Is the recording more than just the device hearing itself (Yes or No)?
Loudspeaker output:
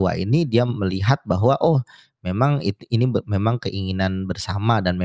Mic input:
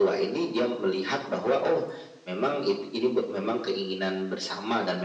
No